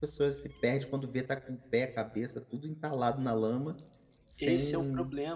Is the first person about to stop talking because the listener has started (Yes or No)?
Yes